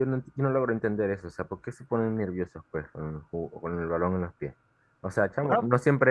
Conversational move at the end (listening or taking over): listening